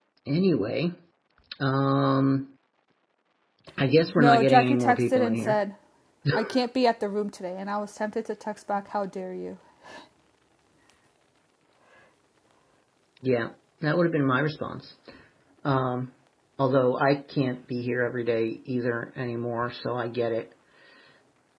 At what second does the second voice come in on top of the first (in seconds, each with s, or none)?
4.2 s